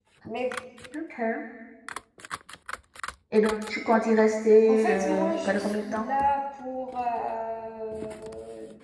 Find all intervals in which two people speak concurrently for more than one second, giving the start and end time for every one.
4.7-6.1

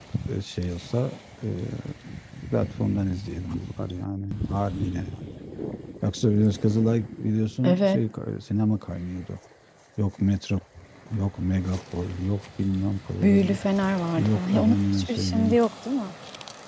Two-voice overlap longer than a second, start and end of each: 14.2-15.6

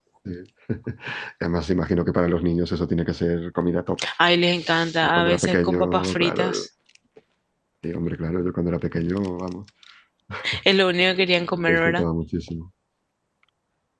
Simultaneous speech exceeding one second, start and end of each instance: 5.0-6.6

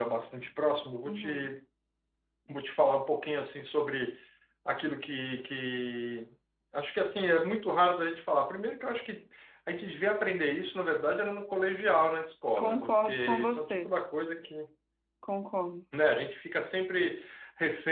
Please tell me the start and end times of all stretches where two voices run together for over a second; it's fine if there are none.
12.6-13.9

